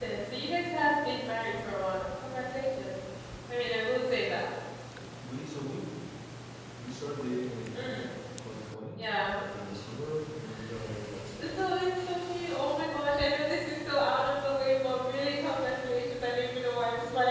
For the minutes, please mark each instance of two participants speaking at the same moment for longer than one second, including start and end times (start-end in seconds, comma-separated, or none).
none